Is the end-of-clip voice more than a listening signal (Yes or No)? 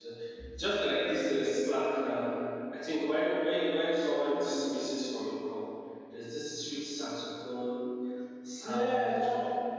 Yes